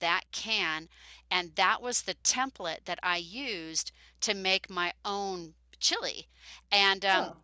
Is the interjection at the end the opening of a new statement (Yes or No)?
No